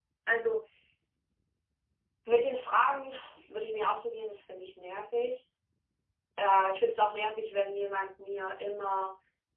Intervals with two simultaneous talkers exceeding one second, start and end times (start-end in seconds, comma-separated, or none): none